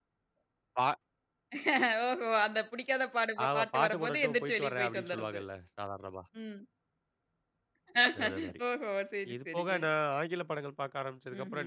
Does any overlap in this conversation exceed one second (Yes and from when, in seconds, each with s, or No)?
Yes, from 3.5 s